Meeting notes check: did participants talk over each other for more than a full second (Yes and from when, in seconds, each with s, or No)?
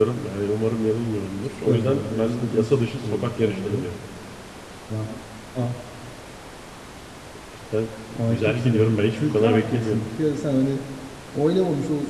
Yes, from 1.7 s